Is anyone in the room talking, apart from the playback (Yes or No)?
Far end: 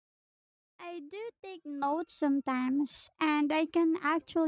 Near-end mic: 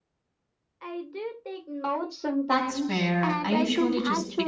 Yes